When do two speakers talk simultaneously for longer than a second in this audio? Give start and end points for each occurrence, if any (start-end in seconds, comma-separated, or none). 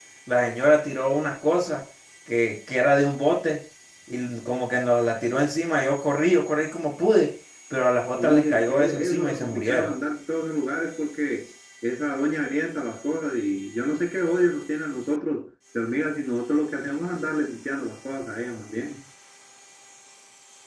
8.2-9.9